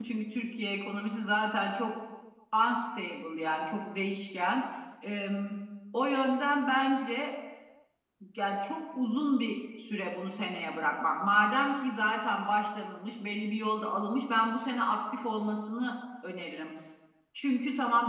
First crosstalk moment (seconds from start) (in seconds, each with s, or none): none